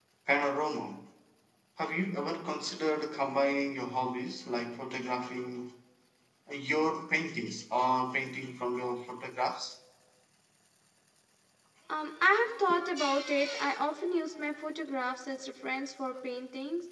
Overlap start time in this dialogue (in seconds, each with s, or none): none